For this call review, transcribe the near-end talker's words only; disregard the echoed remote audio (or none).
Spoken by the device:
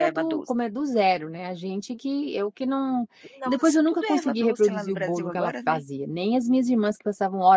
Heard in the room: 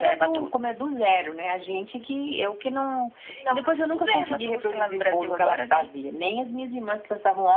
none